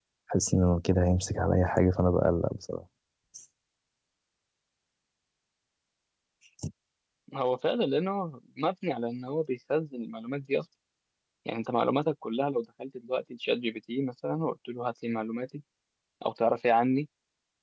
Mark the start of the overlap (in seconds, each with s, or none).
none